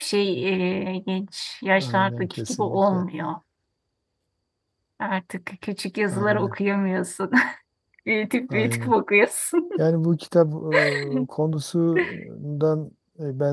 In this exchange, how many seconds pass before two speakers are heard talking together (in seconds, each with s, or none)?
1.8 s